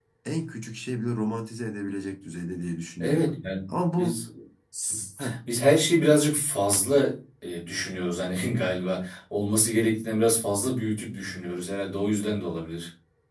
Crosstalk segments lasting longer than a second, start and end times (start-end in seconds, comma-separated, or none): none